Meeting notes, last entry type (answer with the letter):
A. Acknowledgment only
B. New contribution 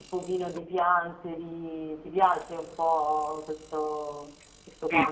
B